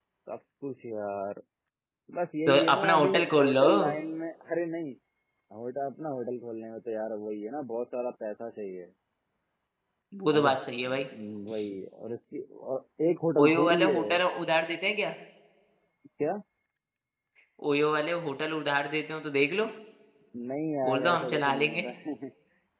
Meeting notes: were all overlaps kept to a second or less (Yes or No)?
No